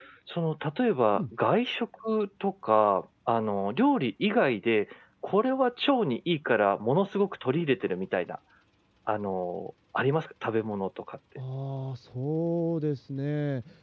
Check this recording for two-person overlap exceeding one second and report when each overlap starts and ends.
none

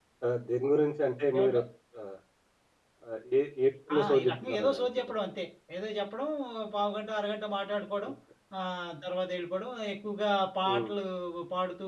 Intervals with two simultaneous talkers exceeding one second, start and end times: 3.9-5.2

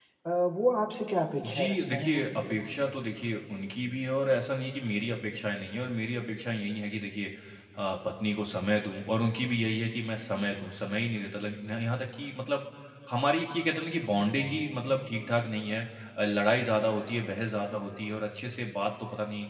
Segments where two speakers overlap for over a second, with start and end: 1.4-2.7

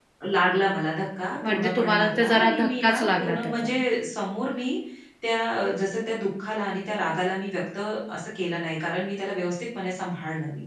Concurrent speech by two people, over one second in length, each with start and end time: 1.4-3.7

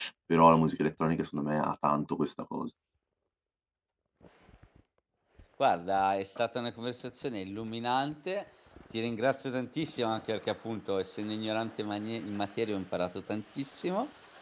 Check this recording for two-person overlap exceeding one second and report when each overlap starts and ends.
none

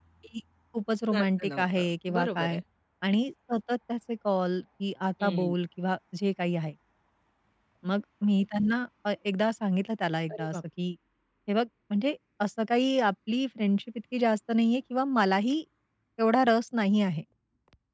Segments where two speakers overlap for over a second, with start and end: 1.1-2.6

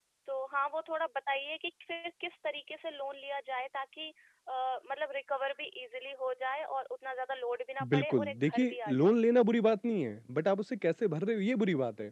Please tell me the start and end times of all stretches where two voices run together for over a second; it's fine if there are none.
7.9-9.2

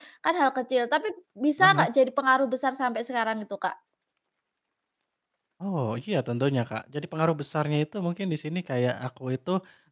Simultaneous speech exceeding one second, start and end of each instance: none

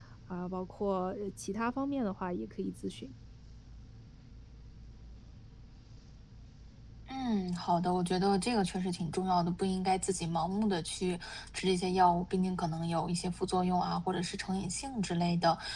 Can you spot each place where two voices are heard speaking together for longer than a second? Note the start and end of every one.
none

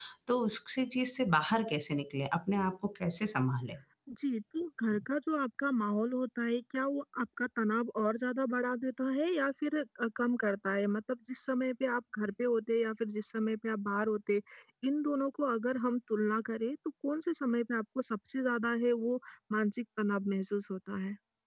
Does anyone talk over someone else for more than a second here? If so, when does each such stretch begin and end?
none

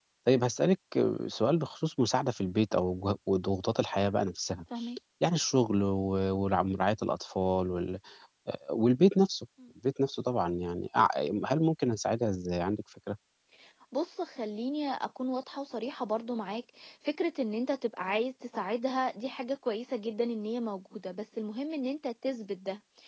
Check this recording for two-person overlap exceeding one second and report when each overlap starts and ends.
none

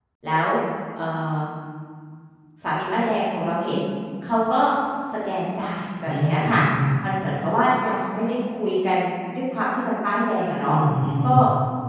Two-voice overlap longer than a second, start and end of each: none

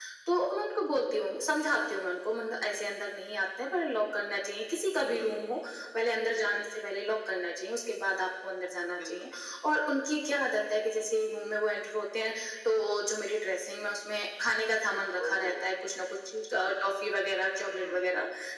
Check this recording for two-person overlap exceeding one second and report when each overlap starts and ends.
none

